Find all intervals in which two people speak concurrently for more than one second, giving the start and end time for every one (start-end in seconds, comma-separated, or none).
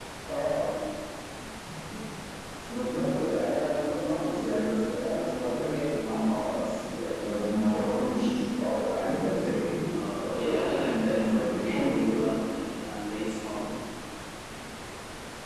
10.3-12.2